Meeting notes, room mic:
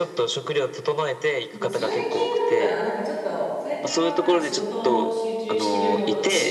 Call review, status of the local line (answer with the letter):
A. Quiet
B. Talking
B